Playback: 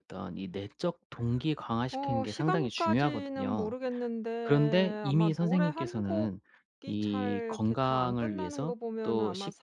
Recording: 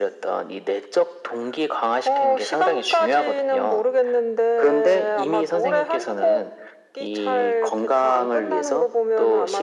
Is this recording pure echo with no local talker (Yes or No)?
Yes